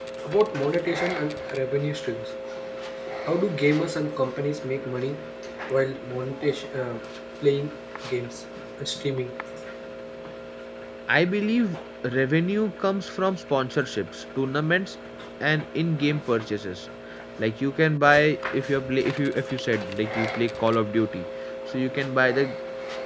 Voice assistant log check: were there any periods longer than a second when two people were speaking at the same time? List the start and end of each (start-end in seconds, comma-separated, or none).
none